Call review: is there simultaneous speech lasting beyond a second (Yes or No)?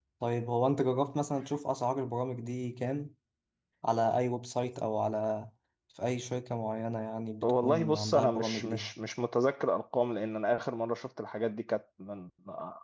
Yes